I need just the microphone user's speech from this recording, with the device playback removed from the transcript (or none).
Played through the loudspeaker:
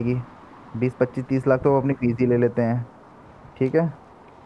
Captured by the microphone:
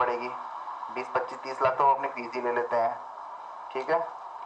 none